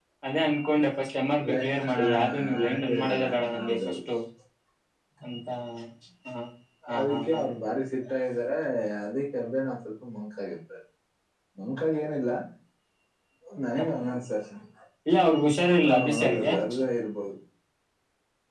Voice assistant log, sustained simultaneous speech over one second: present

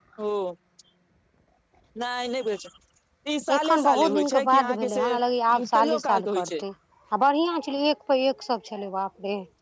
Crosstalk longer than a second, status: present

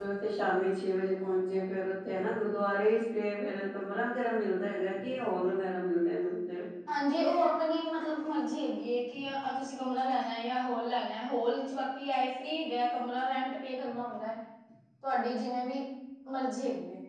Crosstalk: none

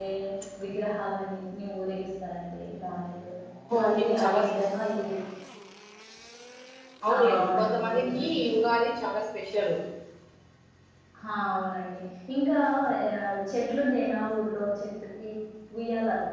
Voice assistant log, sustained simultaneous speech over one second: present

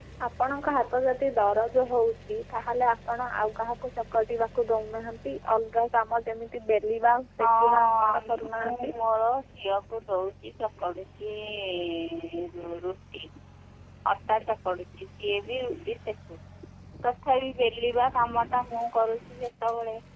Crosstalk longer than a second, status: present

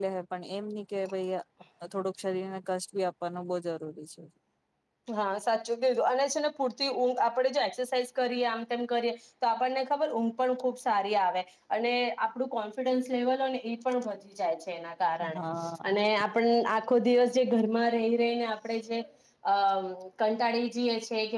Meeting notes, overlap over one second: none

